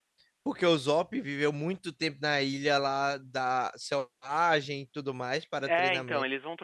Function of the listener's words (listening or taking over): taking over